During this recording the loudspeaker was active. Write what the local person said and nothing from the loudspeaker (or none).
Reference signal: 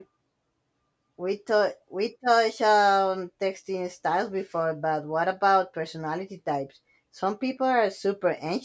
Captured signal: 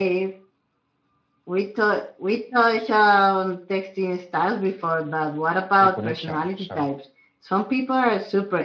reconnection. So